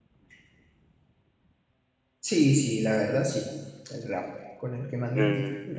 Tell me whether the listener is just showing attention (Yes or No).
No